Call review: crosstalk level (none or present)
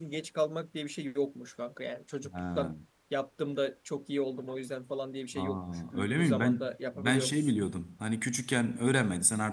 present